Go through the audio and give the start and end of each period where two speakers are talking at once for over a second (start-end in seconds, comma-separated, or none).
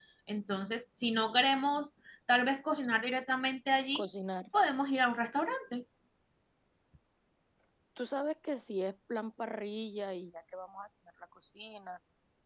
none